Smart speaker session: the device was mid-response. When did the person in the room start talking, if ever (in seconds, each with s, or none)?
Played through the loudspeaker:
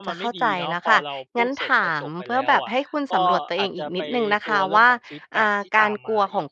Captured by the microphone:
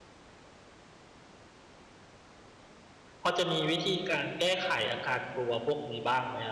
3.2 s